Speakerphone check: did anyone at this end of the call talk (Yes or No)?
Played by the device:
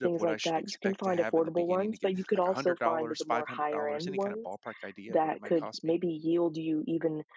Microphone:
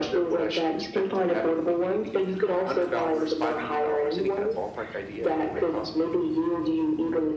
No